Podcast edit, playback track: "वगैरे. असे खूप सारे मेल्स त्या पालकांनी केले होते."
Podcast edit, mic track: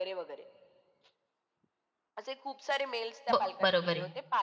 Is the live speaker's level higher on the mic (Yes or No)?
Yes